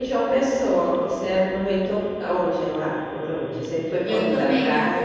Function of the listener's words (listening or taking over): taking over